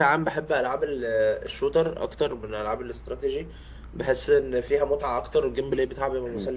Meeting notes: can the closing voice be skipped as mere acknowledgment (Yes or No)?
Yes